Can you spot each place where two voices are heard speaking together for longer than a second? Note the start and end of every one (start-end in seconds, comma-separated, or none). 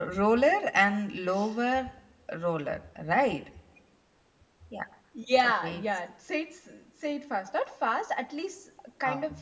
none